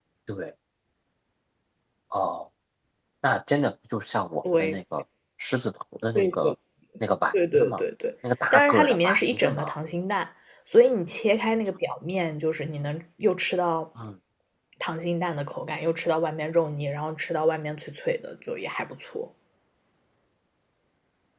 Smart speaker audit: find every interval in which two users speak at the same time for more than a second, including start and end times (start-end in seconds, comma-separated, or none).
8.5-9.8